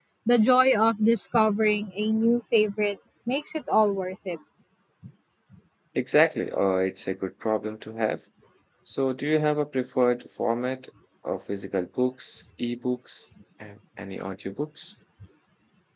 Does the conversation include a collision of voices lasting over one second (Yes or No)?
No